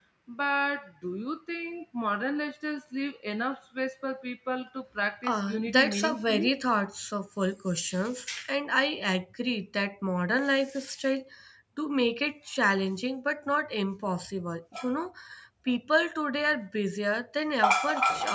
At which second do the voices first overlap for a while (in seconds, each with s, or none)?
5.2 s